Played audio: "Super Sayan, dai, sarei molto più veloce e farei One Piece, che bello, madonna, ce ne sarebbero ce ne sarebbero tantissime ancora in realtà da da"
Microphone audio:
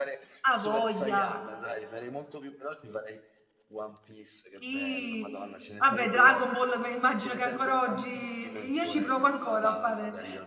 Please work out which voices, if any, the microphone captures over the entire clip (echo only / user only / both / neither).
both